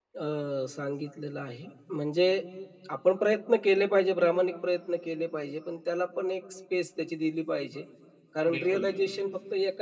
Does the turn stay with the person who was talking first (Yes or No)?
Yes